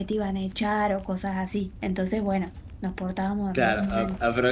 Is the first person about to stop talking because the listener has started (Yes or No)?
Yes